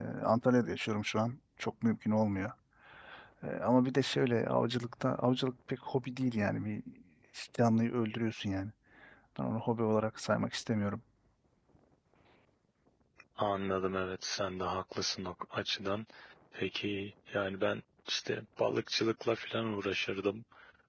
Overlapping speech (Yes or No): No